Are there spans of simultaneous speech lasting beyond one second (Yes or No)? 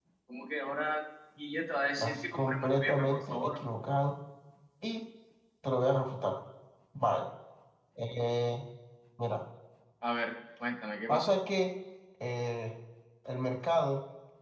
Yes